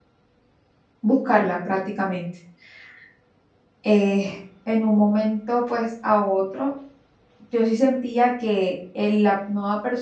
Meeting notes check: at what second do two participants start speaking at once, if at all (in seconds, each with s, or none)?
none